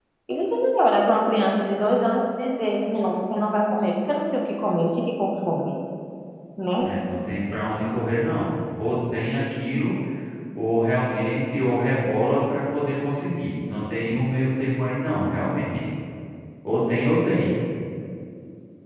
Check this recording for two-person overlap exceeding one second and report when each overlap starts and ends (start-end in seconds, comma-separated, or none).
none